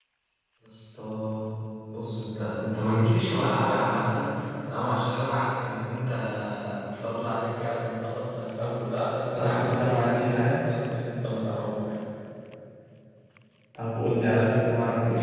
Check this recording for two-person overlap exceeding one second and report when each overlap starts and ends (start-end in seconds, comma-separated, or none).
9.3-10.6